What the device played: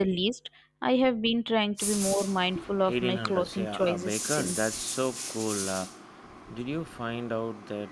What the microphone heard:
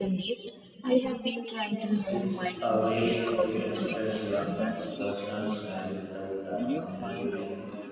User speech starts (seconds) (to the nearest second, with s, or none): 2 s